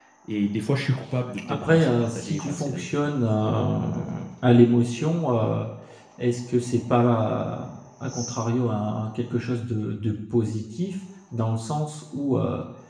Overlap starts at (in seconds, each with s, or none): 1.4 s